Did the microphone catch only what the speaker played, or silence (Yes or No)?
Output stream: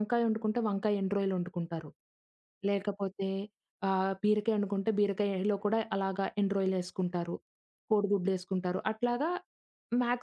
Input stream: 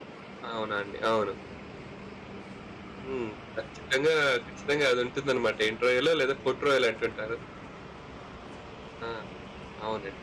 No